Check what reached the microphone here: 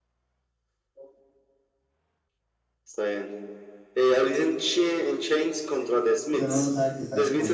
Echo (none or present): present